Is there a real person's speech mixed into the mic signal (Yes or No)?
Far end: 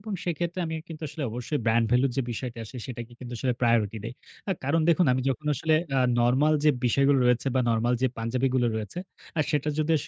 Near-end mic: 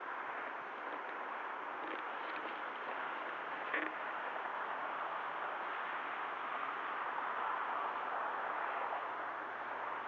No